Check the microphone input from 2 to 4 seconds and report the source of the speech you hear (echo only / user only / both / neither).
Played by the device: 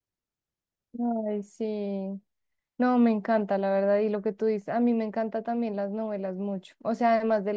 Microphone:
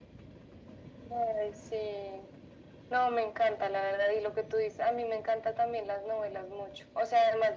echo only